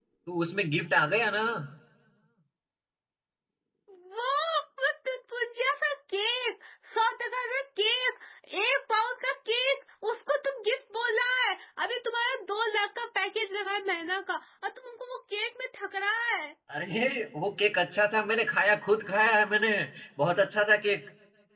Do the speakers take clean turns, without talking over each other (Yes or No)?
Yes